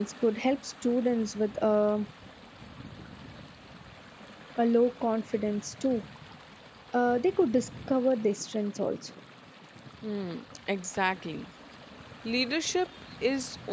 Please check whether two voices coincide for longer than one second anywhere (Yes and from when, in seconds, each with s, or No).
No